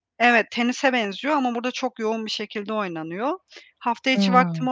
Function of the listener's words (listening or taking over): listening